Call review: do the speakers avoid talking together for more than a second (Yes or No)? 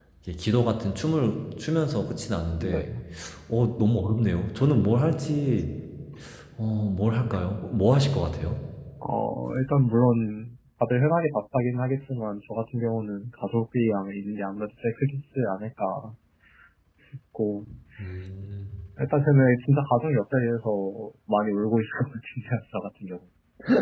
Yes